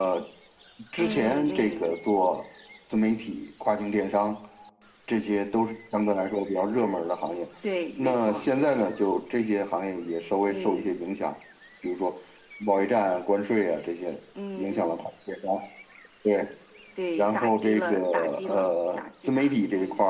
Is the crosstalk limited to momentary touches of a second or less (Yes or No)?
No